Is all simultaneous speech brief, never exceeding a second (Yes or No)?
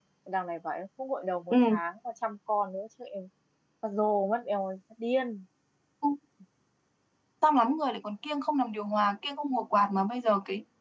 Yes